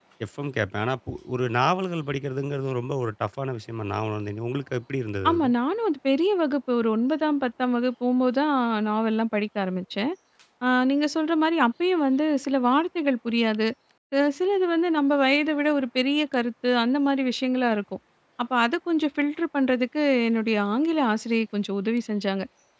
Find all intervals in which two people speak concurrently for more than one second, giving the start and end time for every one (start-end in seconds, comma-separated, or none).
none